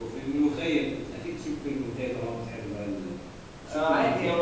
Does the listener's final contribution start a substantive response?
Yes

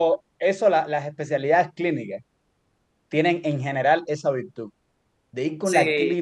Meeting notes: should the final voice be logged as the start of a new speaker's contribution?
No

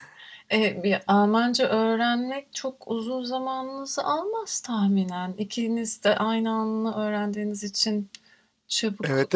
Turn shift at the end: Yes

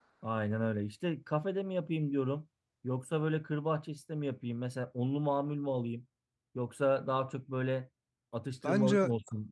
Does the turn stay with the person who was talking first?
Yes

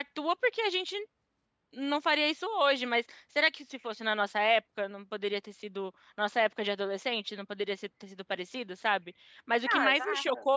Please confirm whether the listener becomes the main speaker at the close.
No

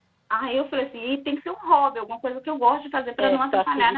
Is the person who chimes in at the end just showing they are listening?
No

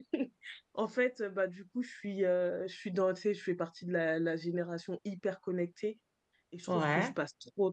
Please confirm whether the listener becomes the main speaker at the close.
No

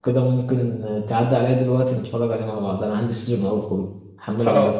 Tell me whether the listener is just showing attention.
No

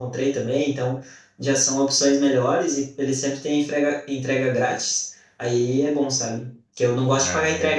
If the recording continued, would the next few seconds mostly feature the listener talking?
No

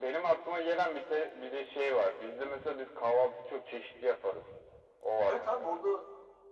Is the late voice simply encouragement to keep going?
No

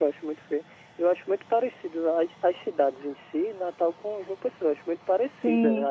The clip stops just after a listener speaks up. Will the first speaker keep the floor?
No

